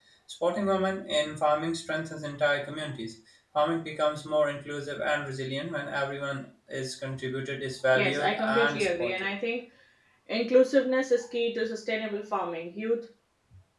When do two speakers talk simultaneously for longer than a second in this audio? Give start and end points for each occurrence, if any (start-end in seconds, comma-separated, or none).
8.0-9.3